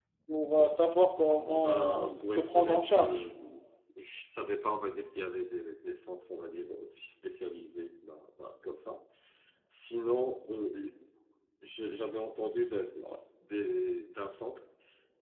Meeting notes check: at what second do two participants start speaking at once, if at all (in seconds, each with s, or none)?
1.5 s